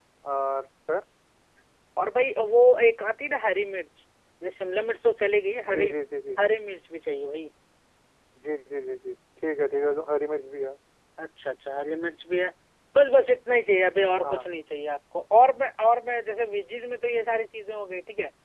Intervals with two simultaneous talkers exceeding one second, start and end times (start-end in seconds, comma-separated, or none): none